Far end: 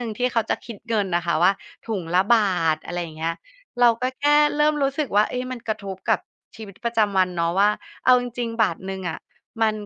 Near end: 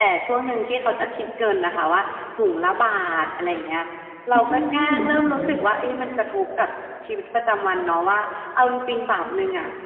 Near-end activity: present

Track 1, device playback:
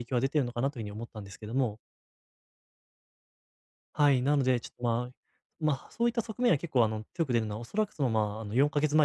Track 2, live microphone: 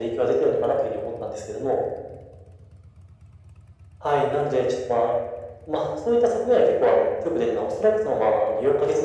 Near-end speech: none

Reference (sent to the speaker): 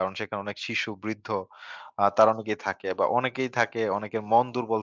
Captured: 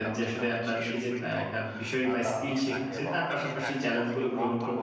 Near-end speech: present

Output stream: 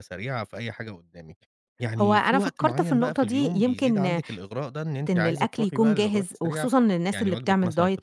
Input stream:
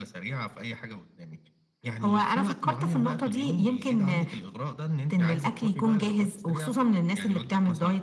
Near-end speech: none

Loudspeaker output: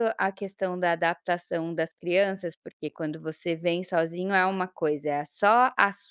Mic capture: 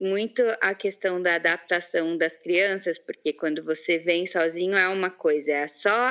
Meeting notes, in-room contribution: none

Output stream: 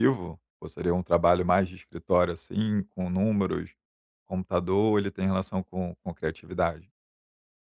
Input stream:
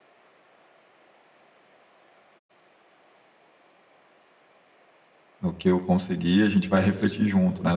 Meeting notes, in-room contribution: present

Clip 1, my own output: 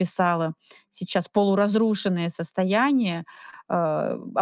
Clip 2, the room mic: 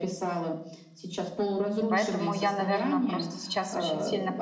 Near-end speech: present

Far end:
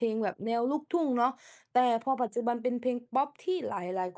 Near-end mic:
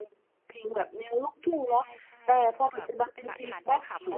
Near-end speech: present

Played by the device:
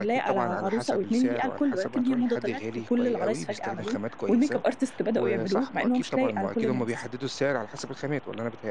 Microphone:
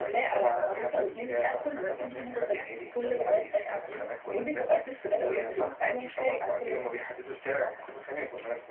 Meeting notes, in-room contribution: present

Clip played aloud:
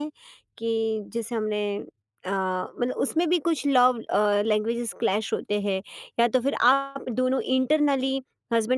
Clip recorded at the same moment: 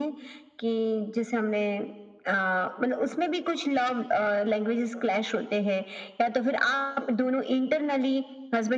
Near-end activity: none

